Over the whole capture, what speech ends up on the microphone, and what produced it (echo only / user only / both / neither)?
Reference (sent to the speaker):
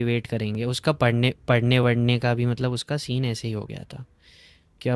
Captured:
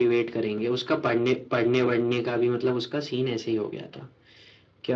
echo only